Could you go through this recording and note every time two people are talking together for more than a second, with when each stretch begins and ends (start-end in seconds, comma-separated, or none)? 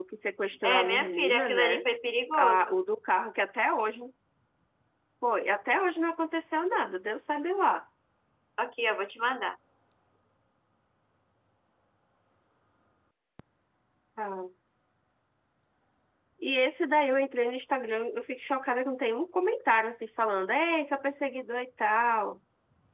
0.6-1.9